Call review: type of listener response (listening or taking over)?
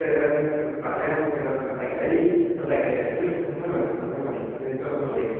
taking over